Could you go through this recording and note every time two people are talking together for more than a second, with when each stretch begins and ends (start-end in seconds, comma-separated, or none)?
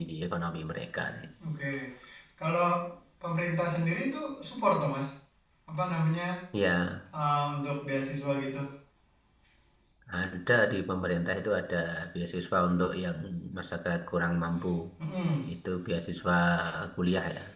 none